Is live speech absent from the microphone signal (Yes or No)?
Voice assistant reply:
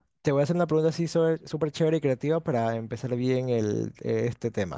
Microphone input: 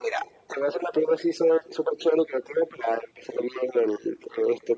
Yes